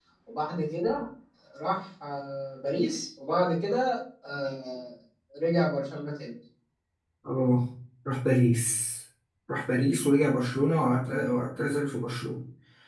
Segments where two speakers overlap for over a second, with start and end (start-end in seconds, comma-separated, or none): none